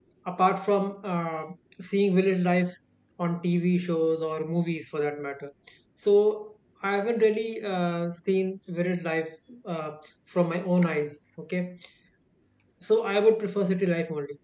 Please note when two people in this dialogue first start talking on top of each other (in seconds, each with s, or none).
none